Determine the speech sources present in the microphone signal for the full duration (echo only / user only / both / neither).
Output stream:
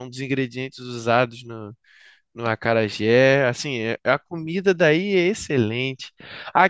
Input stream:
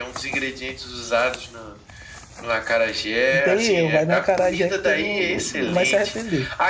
both